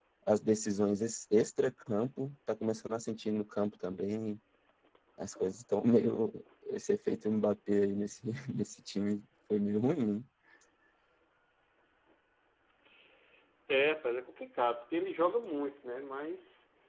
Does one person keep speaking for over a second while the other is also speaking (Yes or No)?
No